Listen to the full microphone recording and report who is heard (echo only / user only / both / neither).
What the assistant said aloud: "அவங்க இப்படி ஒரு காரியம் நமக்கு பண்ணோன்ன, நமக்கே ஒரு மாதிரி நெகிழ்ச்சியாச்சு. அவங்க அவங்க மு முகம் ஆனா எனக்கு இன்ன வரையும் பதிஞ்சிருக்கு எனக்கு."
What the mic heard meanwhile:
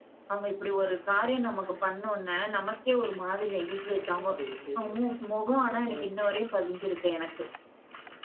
both